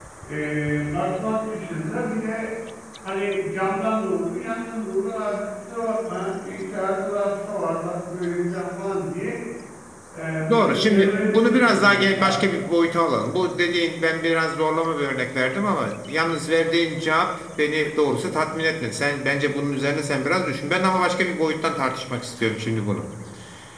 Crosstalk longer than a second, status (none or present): present